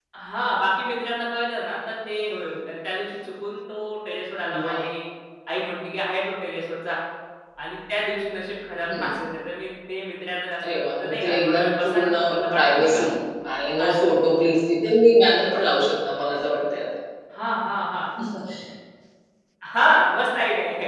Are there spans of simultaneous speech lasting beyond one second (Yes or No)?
Yes